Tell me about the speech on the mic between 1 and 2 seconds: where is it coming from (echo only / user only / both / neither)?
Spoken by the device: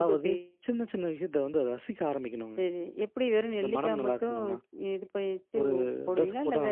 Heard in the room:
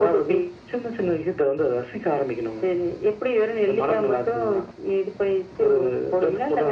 echo only